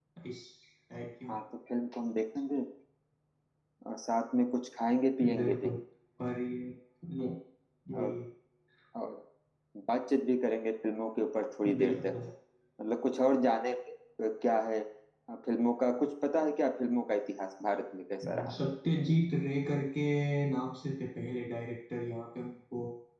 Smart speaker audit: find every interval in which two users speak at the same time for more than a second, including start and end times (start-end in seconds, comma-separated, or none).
none